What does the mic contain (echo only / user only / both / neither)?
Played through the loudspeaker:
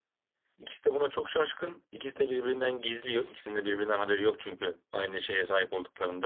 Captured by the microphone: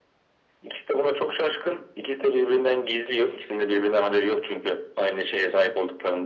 echo only